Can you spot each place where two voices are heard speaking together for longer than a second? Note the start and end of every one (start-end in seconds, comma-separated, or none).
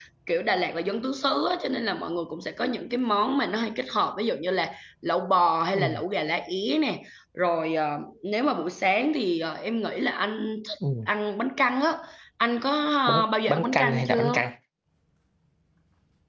13.1-14.4